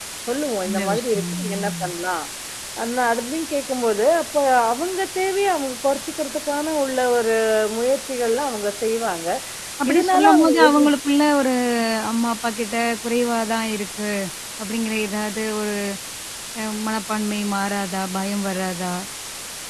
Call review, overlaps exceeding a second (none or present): present